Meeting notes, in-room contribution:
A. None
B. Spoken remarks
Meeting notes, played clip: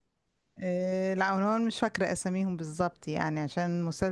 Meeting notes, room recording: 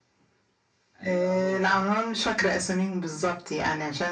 B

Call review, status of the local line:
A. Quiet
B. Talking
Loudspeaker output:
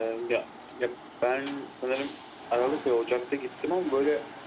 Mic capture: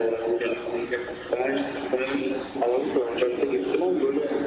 A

